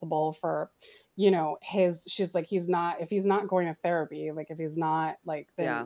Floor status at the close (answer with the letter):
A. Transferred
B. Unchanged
B